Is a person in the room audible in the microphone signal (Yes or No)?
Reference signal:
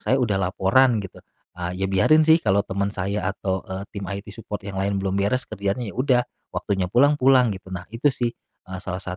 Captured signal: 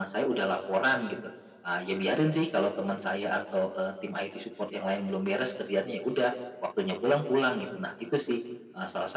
No